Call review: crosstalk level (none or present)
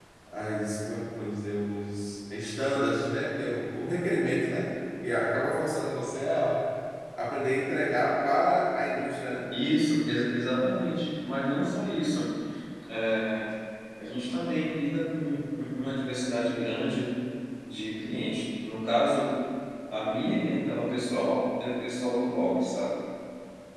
none